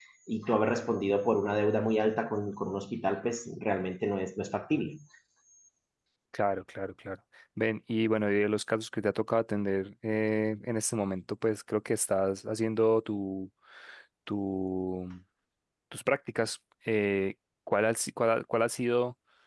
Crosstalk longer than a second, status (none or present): none